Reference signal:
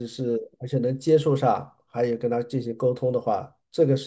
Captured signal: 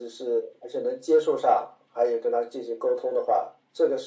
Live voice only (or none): none